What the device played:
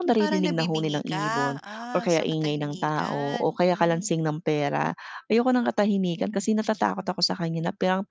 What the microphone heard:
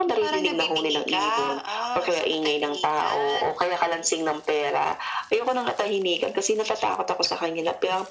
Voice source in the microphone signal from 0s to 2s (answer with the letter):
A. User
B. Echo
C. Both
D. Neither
B